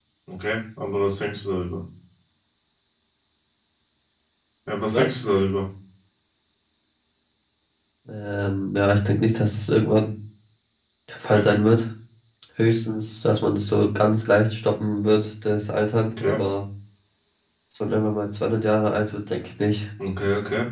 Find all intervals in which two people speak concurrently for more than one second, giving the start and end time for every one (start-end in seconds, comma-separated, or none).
none